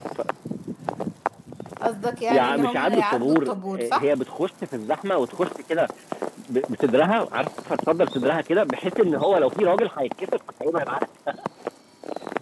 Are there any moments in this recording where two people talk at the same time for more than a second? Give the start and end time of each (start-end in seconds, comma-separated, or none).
2.3-4.1